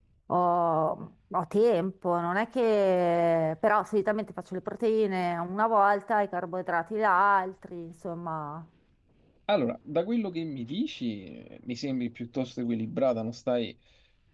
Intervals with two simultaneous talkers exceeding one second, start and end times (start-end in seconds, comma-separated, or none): none